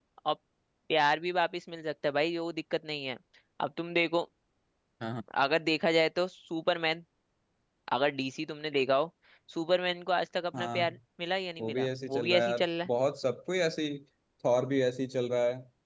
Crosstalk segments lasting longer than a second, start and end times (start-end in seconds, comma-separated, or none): 11.6-12.9